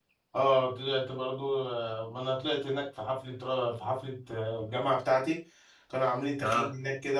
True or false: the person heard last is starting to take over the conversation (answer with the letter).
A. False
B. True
A